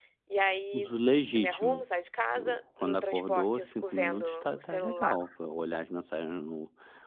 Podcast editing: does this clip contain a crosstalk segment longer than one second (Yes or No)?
Yes